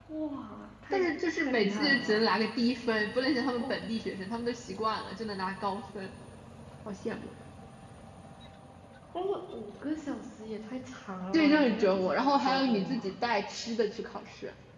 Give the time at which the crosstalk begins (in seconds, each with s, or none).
0.9 s